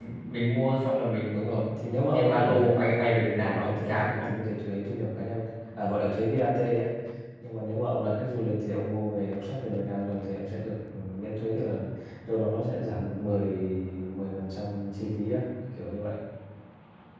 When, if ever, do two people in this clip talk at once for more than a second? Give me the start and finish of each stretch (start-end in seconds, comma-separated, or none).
2.1-4.3